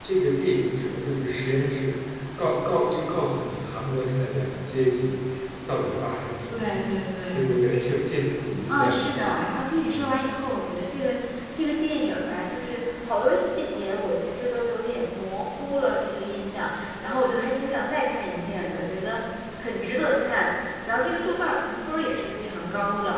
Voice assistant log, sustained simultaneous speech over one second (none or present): none